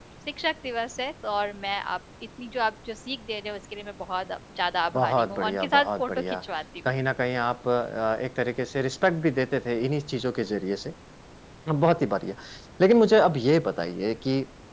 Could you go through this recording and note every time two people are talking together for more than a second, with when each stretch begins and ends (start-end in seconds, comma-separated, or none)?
4.9-6.4